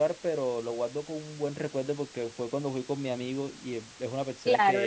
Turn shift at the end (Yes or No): Yes